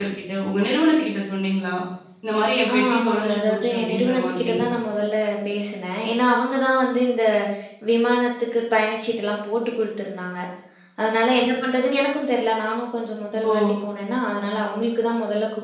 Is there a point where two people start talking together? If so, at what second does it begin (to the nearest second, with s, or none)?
3 s